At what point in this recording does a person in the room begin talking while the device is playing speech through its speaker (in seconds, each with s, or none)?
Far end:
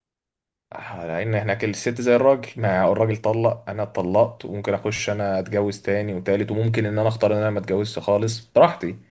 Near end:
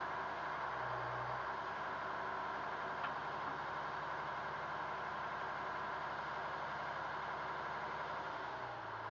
none